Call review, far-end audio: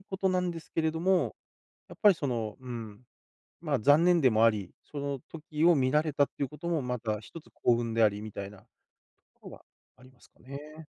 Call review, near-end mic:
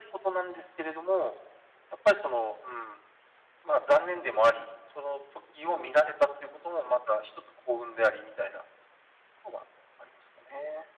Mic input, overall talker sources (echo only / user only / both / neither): echo only